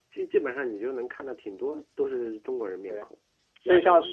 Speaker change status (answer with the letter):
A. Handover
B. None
A